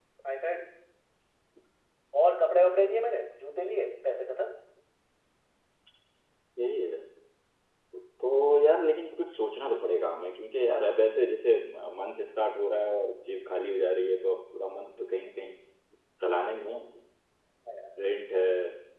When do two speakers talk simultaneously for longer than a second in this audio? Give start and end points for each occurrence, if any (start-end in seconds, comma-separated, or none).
none